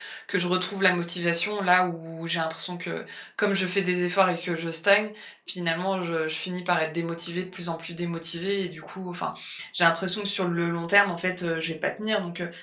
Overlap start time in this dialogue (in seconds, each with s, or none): none